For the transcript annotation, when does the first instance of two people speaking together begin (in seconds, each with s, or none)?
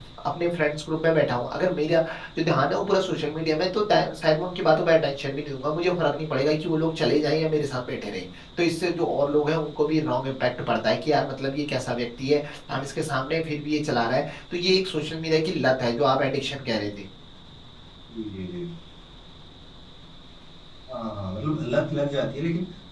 none